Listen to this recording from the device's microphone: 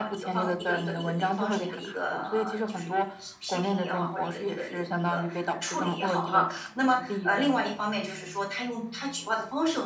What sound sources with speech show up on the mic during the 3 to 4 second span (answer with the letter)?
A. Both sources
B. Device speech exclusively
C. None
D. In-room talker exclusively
A